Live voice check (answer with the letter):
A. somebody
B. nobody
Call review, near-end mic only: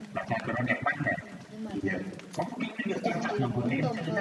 A